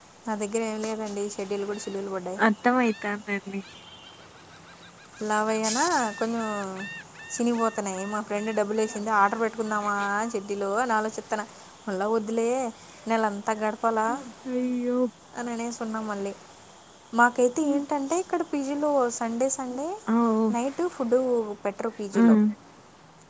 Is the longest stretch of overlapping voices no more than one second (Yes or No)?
Yes